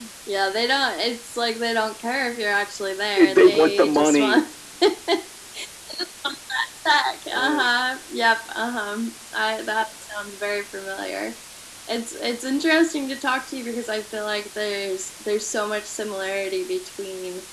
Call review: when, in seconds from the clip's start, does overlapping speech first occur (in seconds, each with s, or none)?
3.2 s